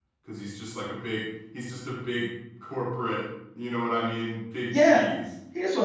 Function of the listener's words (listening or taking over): taking over